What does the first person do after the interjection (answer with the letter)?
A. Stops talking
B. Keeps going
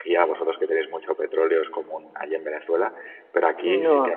B